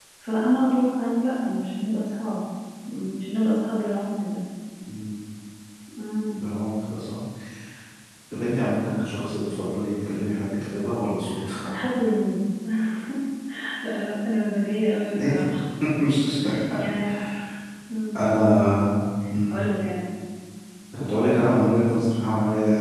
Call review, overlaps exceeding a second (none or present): none